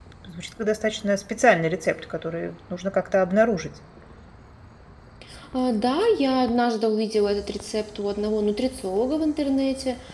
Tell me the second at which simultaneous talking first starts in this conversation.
none

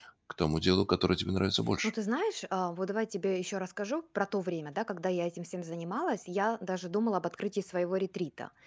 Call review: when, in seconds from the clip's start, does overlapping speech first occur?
none

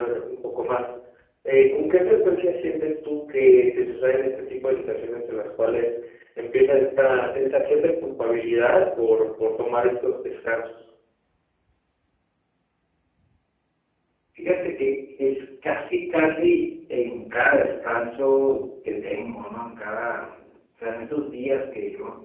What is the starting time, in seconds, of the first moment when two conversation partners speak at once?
none

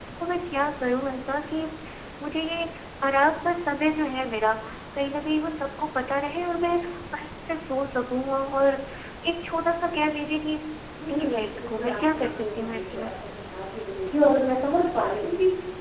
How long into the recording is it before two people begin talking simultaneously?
11.1 s

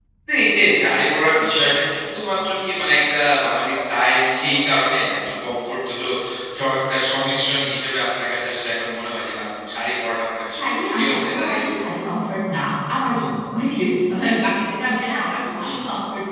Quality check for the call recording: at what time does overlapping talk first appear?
10.5 s

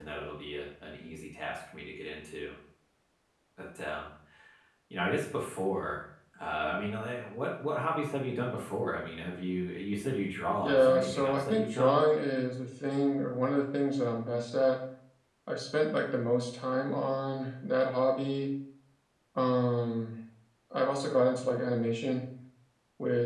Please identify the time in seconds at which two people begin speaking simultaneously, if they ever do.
10.6 s

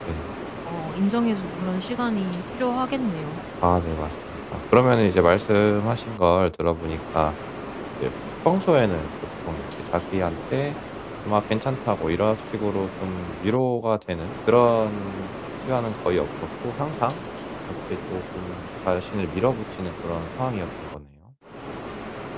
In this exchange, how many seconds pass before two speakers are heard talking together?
none

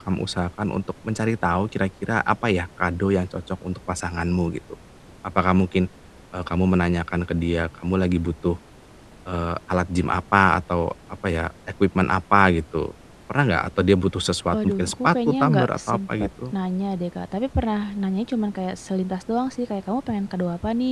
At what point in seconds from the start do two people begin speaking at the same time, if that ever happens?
14.5 s

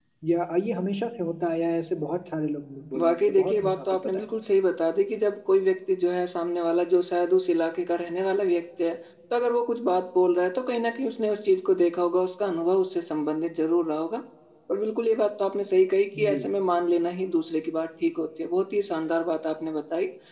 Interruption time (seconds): 3.0 s

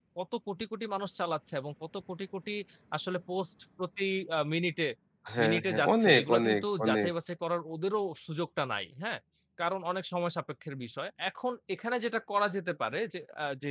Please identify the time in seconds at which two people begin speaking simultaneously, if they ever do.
5.4 s

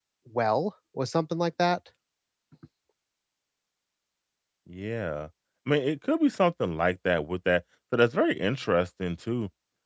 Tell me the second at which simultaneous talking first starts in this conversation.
none

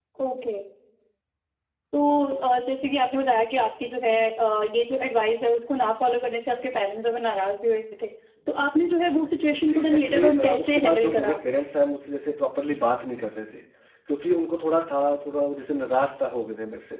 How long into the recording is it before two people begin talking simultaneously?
9.5 s

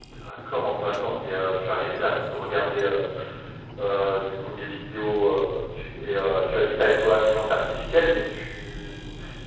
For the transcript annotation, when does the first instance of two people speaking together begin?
none

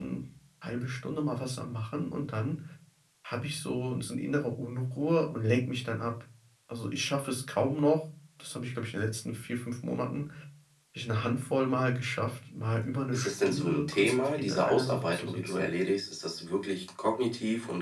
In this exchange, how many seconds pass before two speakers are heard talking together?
13.1 s

